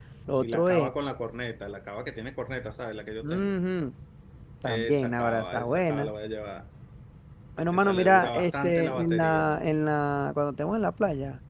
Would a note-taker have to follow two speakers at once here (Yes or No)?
Yes